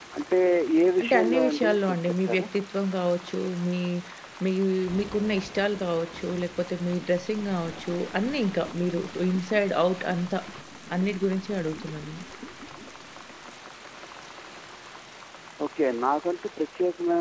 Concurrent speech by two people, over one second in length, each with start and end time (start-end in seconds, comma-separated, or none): 1.0-2.5